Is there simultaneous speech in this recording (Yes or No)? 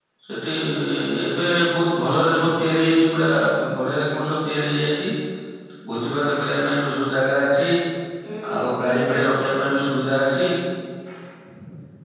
Yes